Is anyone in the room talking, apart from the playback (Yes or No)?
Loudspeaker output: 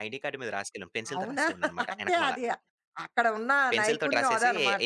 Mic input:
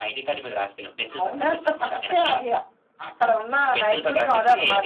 No